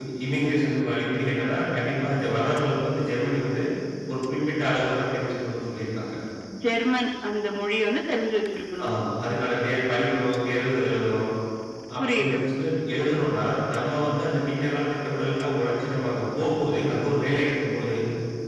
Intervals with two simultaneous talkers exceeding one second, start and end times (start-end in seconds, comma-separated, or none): none